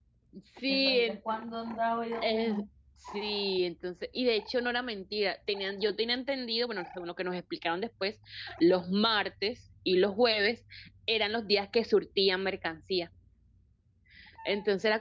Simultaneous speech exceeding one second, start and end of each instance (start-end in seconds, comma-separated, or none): none